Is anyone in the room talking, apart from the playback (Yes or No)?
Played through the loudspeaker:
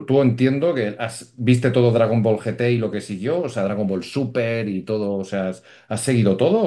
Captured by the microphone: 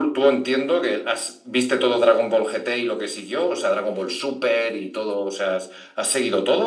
No